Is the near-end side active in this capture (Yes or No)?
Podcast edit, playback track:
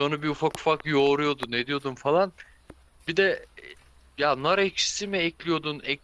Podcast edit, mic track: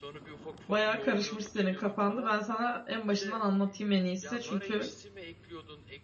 Yes